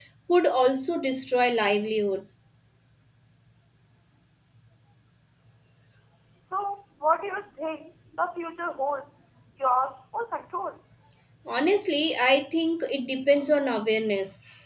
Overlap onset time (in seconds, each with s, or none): none